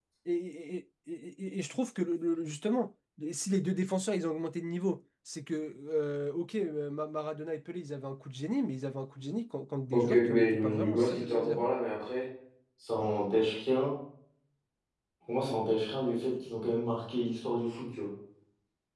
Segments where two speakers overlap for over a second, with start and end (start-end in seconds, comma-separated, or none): 9.9-11.6